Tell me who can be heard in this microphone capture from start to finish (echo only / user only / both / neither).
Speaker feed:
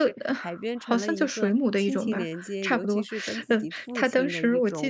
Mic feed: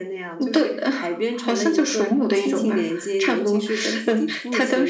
echo only